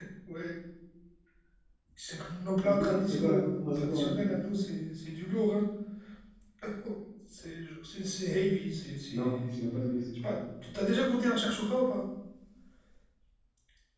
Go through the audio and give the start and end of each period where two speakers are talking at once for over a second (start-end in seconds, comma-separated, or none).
2.6-4.3